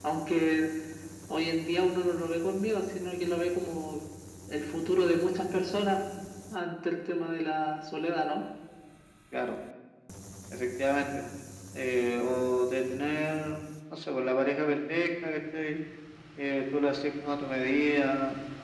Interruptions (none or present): none